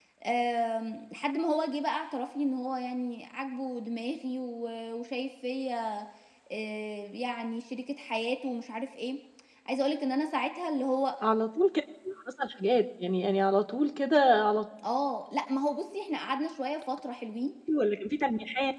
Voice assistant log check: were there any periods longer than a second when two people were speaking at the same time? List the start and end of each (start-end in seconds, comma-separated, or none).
none